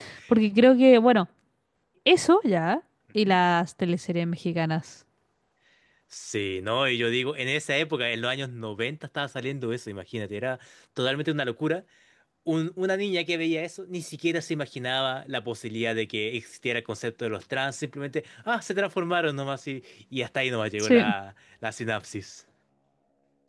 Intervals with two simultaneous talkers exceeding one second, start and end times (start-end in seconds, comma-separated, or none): none